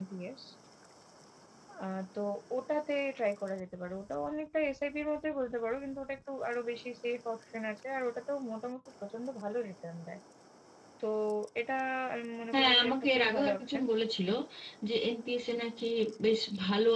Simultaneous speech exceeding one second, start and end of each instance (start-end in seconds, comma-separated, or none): 12.5-13.8